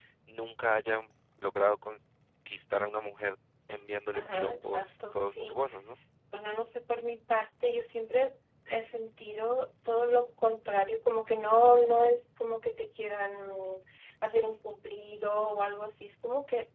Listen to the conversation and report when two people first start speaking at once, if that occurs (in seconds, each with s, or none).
4.1 s